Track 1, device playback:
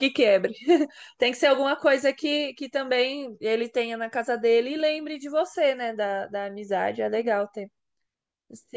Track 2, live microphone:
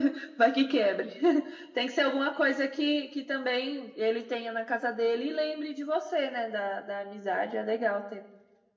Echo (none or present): present